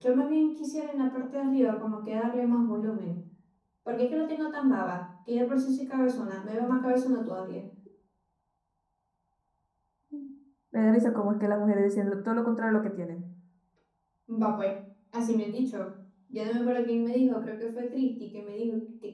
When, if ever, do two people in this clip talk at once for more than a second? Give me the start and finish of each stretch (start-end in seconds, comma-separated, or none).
none